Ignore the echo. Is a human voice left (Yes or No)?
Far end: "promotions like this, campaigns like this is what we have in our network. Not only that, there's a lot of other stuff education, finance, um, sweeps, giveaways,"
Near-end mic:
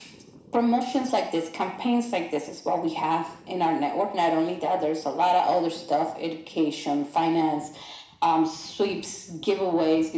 No